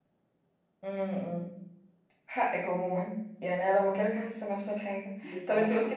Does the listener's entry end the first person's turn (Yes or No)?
No